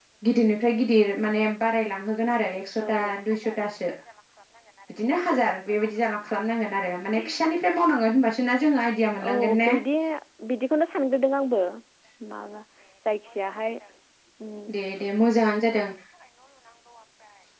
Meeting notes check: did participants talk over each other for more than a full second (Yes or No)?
No